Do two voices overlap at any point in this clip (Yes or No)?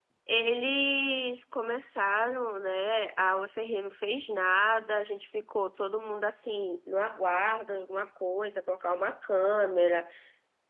No